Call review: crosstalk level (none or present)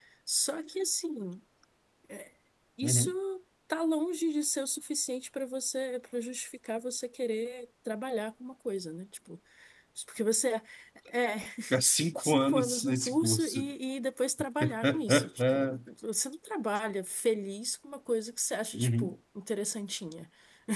present